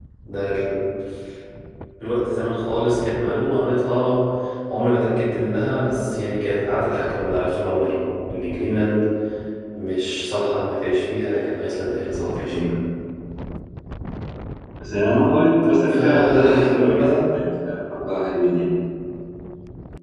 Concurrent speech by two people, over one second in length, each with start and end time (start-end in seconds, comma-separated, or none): 15.9-17.1